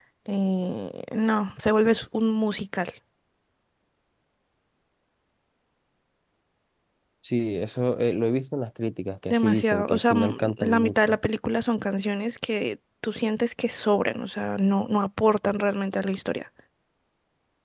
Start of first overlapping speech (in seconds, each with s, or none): 9.3 s